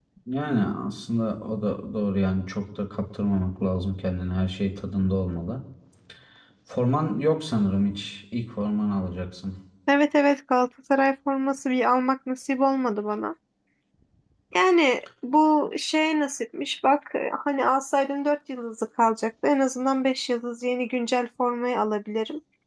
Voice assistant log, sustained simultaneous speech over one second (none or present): none